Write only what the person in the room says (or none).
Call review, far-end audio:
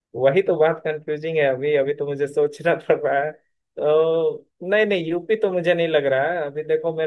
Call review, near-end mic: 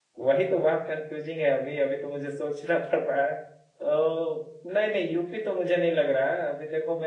none